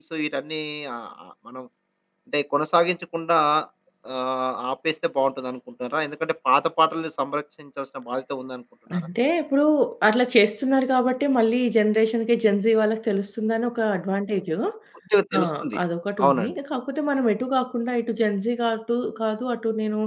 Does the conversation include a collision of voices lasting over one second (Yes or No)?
No